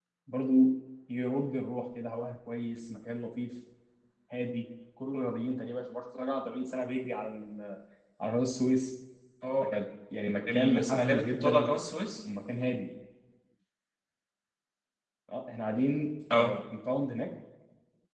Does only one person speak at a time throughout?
No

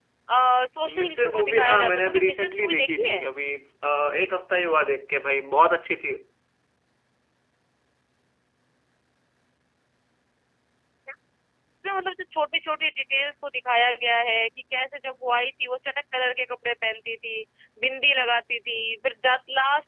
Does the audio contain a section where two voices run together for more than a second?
Yes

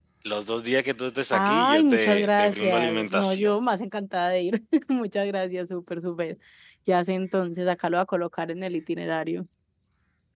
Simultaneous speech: Yes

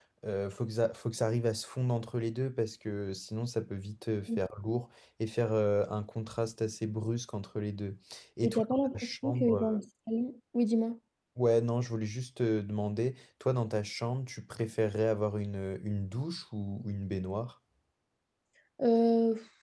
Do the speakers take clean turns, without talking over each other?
No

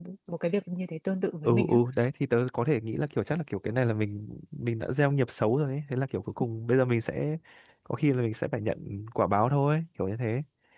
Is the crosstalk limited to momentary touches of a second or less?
Yes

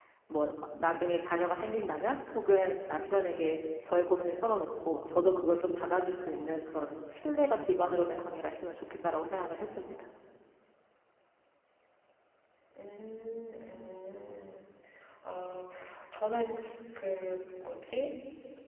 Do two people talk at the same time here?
No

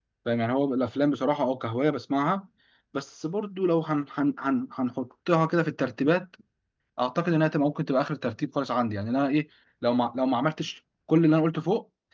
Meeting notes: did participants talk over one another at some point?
No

